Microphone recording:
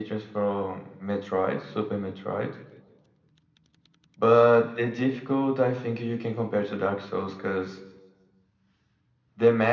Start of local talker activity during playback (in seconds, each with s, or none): none